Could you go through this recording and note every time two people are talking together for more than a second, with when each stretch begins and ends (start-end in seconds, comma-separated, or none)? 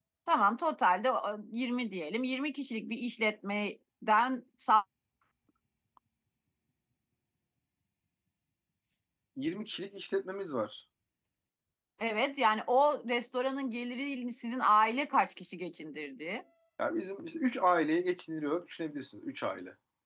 none